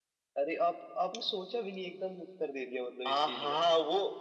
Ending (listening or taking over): taking over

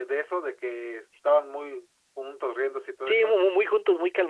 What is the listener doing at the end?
taking over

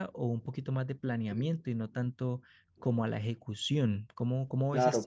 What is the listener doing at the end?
taking over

